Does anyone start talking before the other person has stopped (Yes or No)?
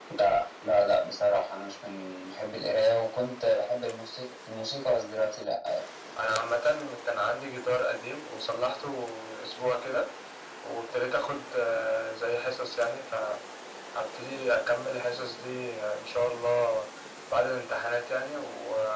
No